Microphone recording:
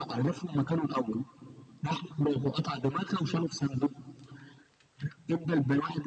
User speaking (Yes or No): No